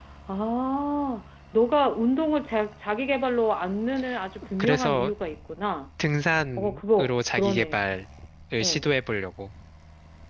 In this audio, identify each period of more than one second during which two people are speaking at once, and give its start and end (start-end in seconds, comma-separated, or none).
6.6-7.9